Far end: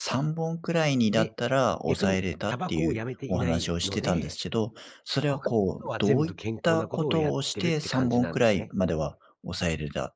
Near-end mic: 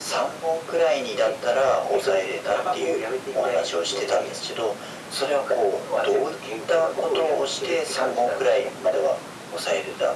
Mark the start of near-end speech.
none

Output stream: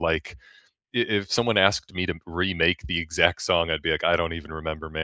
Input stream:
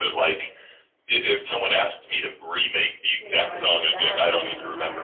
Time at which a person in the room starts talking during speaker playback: 3.2 s

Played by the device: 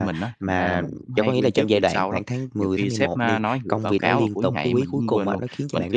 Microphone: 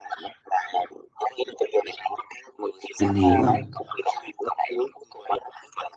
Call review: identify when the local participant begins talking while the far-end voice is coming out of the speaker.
3.0 s

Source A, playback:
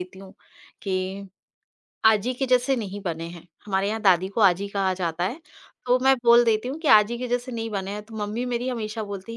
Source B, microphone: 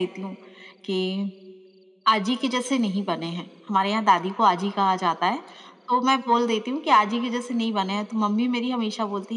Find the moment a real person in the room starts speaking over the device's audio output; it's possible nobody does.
none

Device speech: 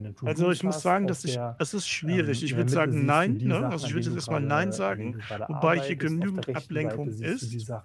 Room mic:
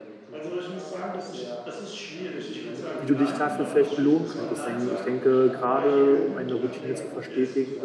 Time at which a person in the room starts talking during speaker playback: 3.0 s

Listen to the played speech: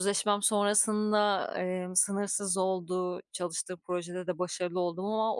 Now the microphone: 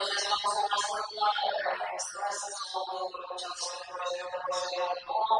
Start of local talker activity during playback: none

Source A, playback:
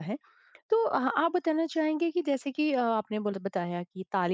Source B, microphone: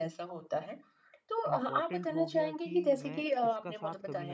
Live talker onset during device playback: 1.5 s

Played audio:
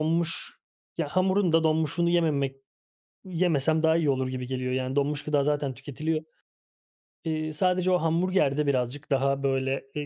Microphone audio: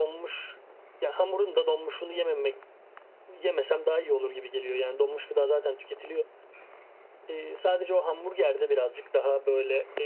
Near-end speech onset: none

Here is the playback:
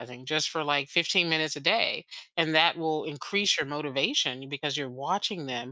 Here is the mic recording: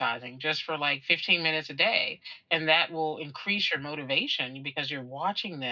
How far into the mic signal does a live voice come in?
none

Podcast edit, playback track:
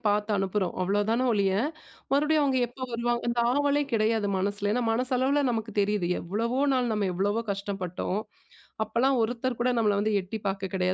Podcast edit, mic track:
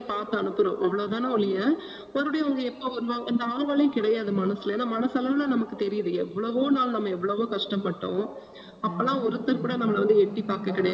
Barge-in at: 8.9 s

